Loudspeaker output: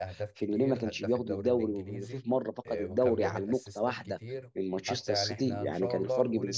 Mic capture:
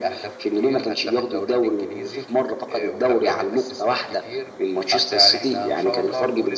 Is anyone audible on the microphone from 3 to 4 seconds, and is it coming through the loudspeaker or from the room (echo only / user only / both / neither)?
echo only